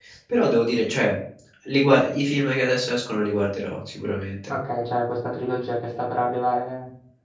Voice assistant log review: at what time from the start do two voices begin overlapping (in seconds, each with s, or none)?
none